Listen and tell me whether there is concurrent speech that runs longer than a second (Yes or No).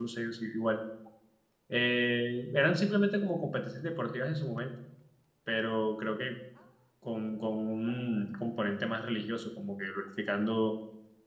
No